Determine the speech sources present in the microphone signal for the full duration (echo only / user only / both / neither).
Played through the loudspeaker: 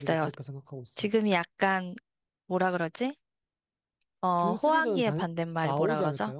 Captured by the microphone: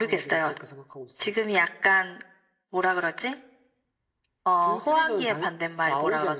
echo only